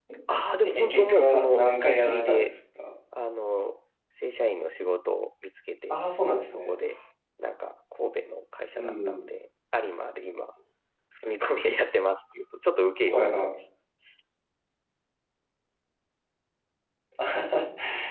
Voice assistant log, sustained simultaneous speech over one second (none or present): present